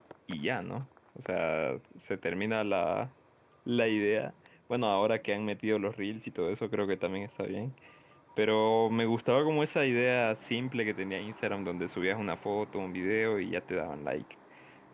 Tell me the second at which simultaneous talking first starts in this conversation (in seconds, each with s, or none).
none